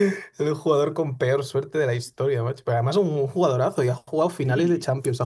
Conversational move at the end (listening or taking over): listening